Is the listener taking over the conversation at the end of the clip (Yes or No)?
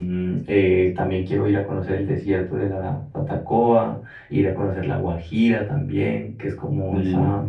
No